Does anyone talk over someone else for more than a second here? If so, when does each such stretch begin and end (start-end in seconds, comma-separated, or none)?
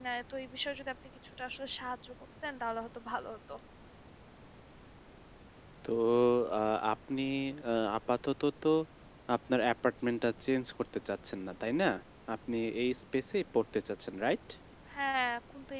none